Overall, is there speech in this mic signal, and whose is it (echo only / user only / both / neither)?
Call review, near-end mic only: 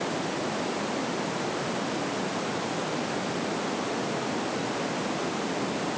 neither